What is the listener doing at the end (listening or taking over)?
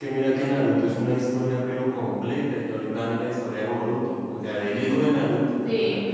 listening